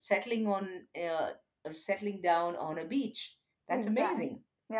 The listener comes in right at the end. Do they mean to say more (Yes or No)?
Yes